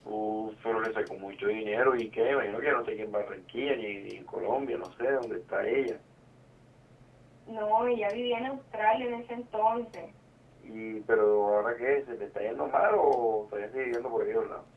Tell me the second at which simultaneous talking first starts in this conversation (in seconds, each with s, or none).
none